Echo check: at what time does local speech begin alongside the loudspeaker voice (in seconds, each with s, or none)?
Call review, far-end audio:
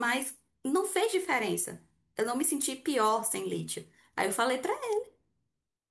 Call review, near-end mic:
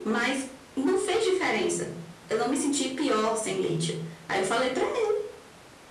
none